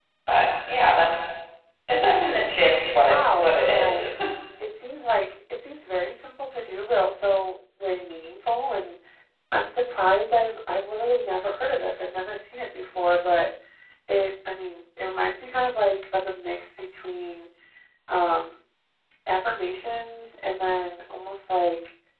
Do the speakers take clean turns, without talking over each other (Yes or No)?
No